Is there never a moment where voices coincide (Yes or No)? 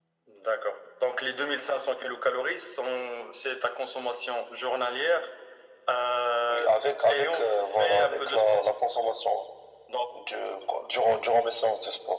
No